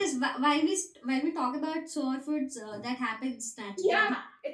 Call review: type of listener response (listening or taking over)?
taking over